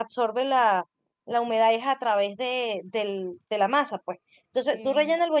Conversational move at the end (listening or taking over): listening